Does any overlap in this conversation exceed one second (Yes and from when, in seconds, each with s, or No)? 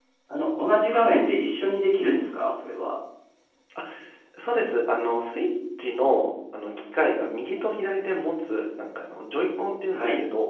No